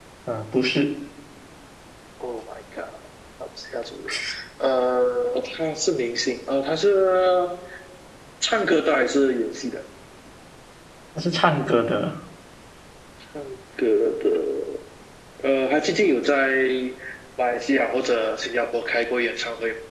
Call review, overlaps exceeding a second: none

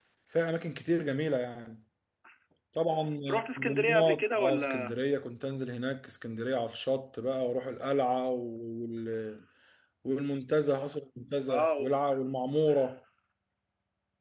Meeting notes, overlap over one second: present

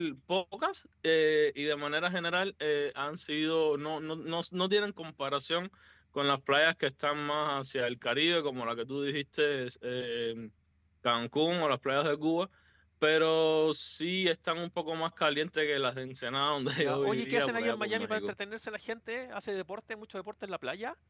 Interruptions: present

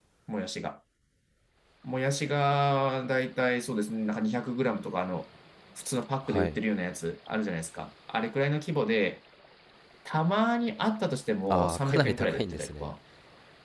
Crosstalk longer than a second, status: present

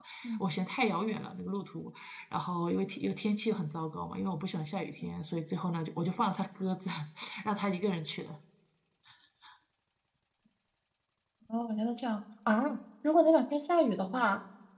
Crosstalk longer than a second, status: none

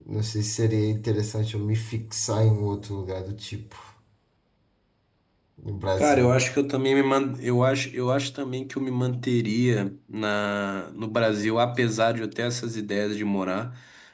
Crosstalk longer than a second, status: none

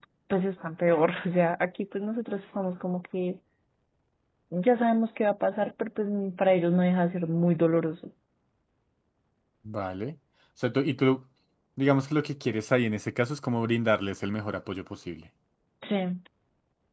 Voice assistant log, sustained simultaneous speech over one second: none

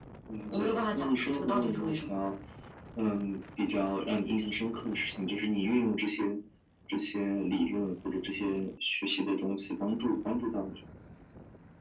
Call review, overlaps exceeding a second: present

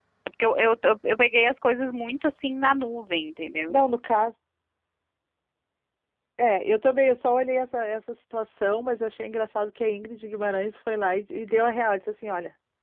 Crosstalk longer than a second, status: none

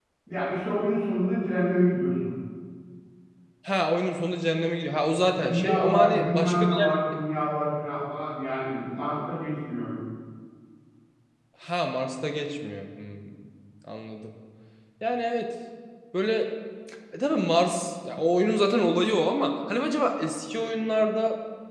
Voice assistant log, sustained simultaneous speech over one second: present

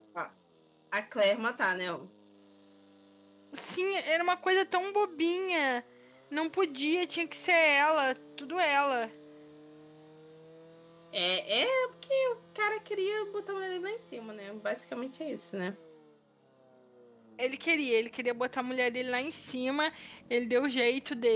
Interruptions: none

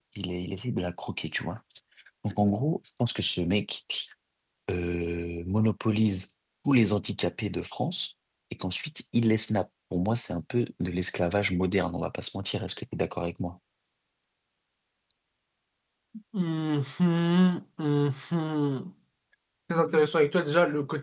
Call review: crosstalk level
none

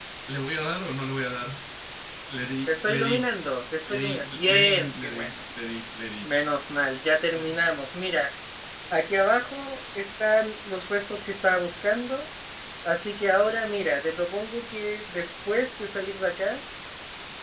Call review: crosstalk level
present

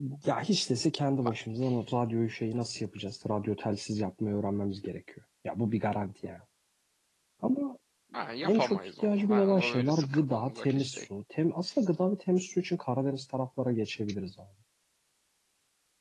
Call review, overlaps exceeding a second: present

